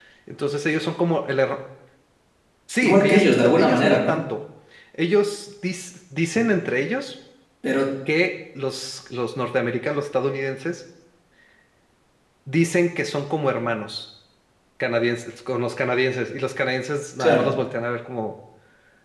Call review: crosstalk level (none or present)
present